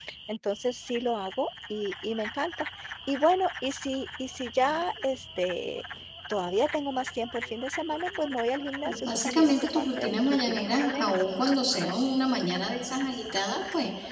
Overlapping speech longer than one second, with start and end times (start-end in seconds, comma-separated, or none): 8.8-11.1